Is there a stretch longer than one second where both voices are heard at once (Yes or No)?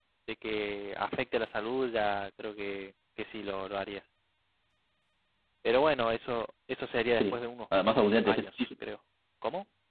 No